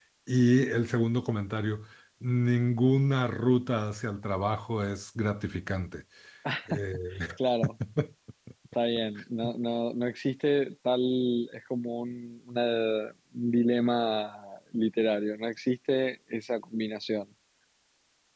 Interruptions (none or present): none